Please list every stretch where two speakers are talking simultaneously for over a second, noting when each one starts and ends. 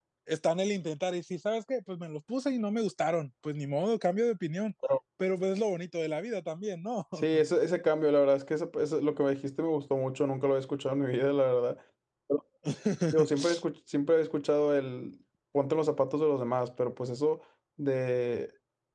none

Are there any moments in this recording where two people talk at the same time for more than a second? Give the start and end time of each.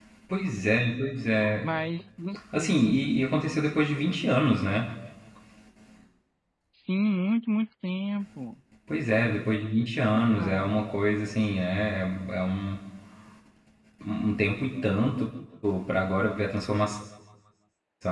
none

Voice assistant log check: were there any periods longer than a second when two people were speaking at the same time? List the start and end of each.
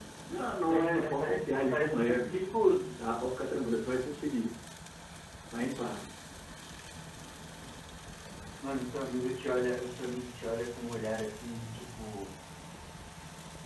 0.7-2.4

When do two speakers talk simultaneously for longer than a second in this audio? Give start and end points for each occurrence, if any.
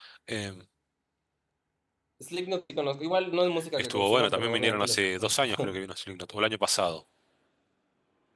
3.8-5.7

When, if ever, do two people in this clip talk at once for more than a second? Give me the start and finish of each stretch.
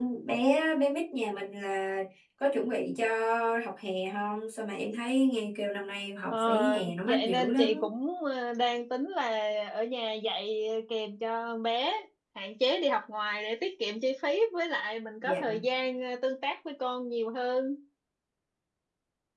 6.3-7.9

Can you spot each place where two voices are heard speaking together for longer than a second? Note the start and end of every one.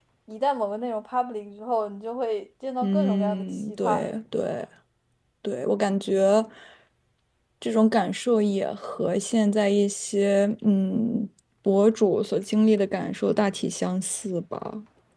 2.8-4.0

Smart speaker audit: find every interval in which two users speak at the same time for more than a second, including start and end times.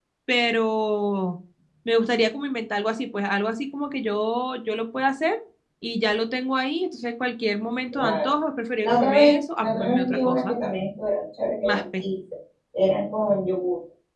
8.8-10.6

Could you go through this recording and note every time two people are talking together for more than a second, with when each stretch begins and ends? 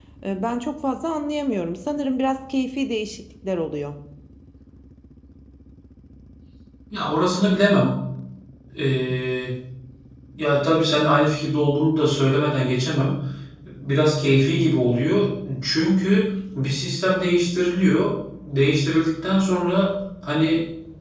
none

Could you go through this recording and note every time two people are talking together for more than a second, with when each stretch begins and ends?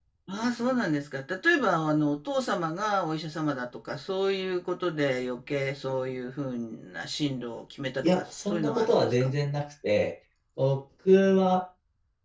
8.0-9.3

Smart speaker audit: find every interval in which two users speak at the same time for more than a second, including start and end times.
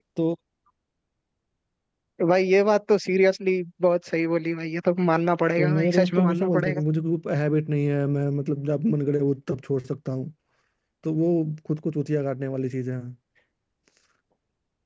5.6-6.8

